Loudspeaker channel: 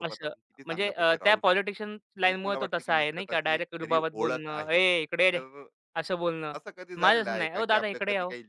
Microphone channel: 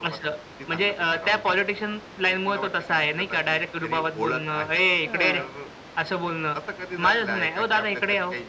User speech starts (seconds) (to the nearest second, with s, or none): 5 s